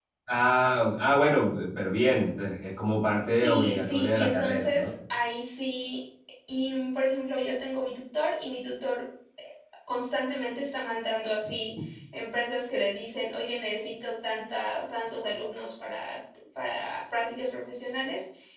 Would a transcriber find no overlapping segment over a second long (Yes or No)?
No